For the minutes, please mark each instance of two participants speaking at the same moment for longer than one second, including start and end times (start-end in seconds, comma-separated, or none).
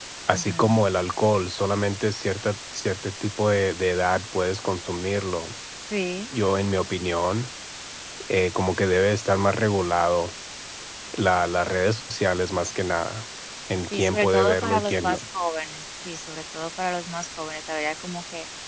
13.9-15.2